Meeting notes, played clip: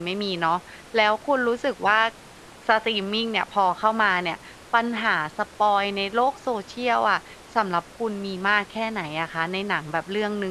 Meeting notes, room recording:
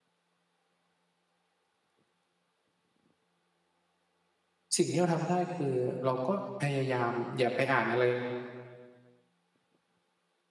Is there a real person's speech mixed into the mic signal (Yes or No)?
Yes